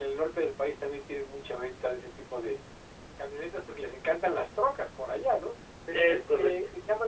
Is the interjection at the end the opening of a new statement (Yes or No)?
No